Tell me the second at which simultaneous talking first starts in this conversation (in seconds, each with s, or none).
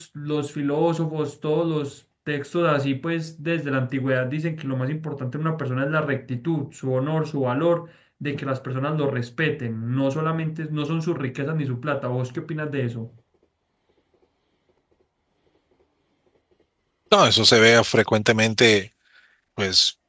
none